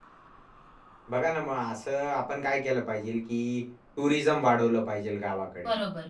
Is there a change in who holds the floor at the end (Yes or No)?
No